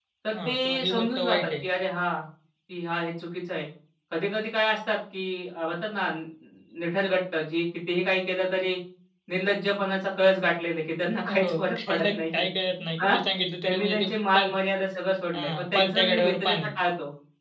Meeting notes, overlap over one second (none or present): present